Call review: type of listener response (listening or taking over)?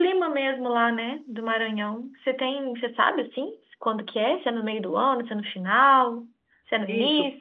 taking over